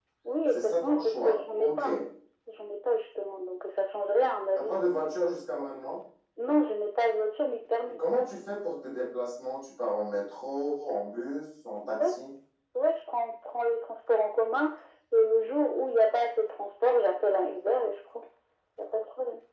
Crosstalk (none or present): present